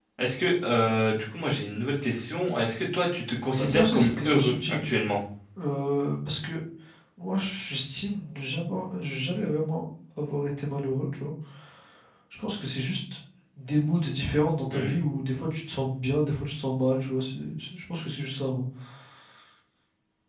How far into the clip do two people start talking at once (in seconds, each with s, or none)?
3.6 s